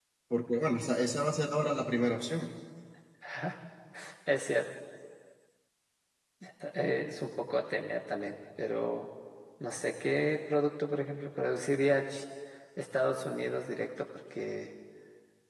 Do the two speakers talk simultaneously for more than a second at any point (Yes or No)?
No